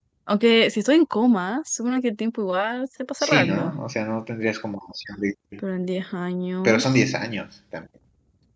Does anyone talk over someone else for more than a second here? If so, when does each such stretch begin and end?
none

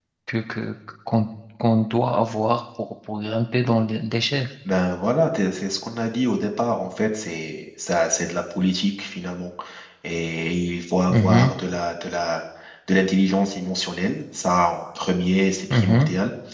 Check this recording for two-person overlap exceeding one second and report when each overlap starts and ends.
none

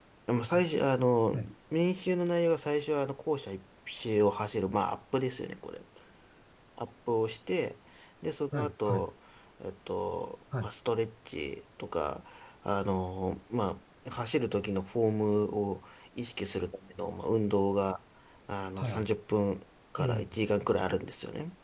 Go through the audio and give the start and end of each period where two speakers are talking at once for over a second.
none

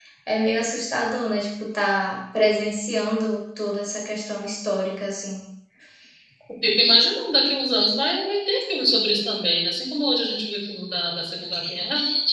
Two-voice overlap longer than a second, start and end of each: none

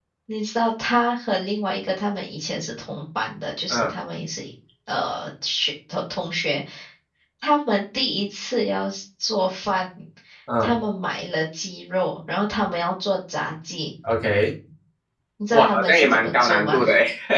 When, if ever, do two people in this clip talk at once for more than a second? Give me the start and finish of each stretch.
15.5-16.8

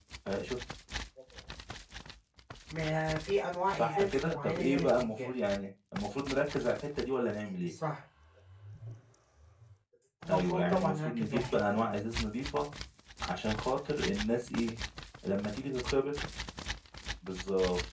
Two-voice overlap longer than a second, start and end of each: 3.7-5.3, 10.3-11.9

